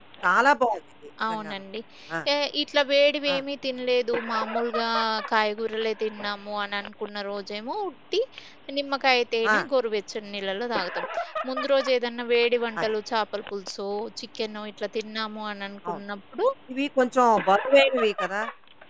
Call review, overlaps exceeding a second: none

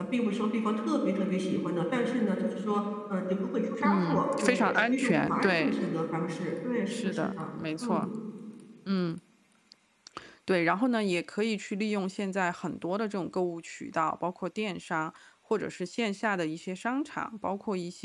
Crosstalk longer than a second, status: present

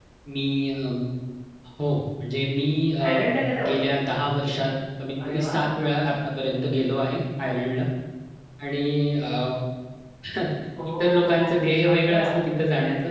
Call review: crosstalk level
present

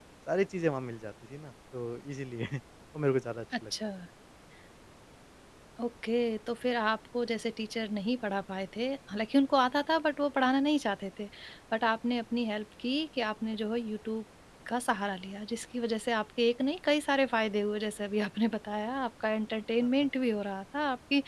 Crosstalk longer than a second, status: none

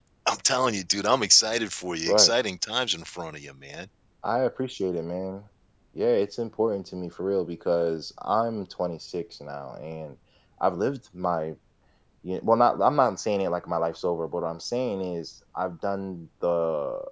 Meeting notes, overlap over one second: none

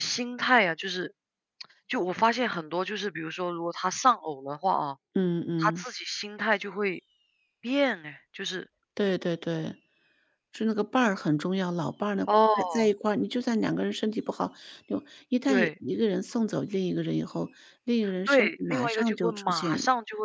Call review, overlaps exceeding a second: present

